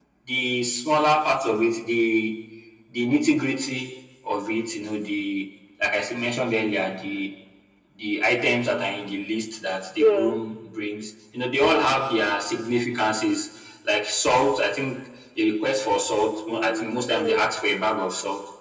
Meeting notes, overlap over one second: present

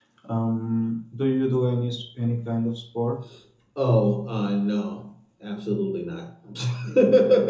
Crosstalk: none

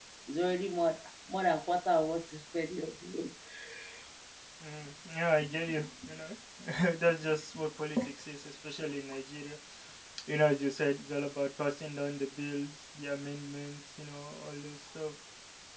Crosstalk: none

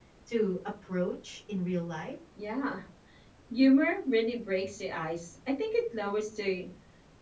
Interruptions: none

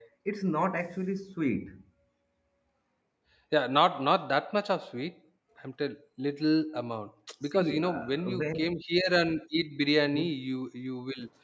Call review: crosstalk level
present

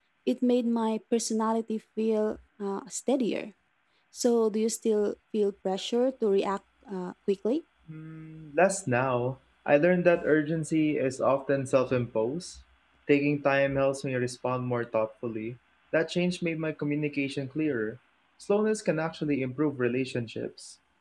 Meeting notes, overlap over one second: none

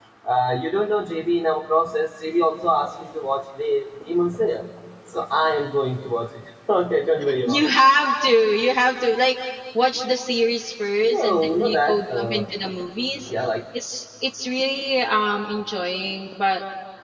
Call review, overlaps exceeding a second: present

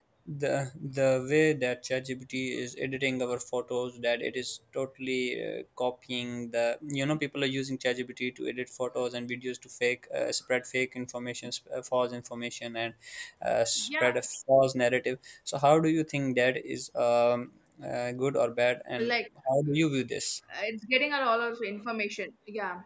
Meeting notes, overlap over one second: none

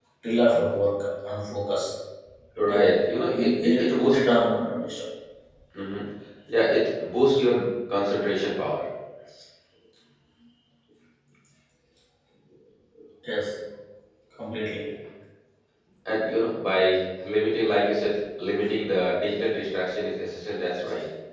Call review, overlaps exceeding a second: present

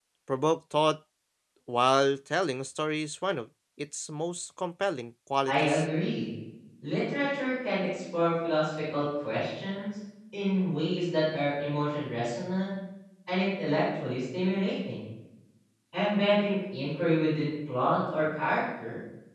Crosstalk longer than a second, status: none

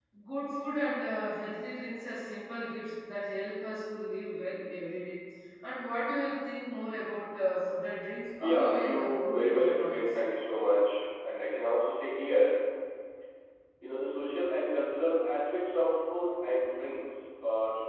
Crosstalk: present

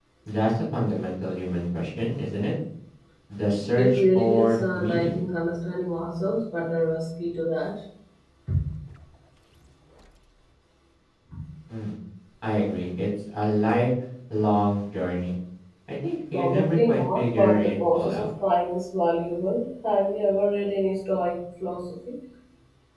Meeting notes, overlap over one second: present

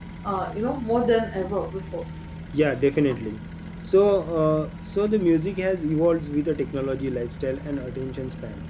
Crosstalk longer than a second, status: none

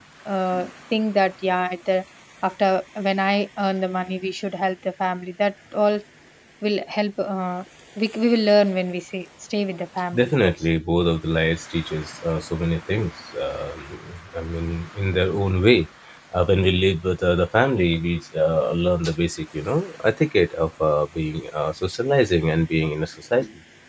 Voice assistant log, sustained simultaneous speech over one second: none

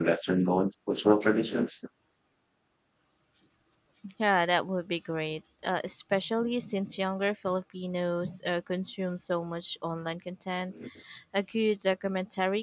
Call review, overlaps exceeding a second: none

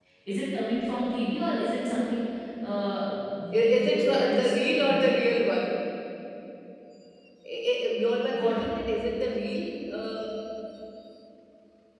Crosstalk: present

